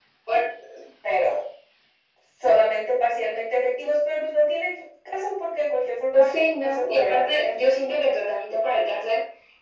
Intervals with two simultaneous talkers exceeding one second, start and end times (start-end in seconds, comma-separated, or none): 6.1-7.4